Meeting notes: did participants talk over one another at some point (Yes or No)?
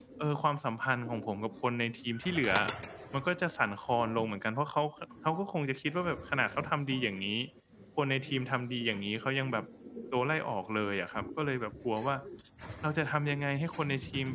No